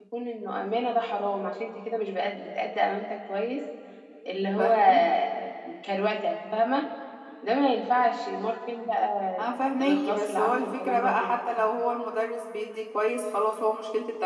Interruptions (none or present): present